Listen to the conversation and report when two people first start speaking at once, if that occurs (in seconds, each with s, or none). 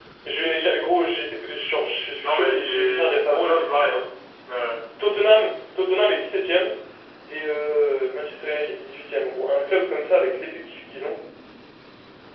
2.2 s